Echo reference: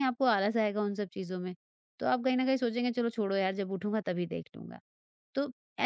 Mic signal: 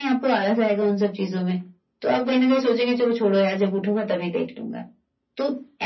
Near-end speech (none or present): none